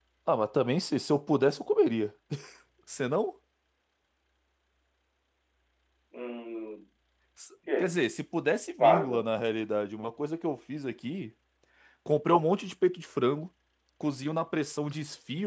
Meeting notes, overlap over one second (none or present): none